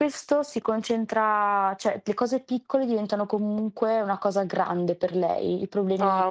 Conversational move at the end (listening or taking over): listening